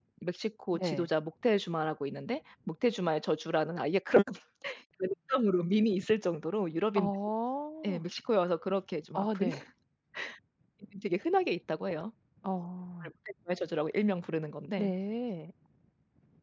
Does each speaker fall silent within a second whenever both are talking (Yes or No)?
Yes